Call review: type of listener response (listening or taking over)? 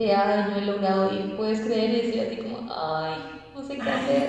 taking over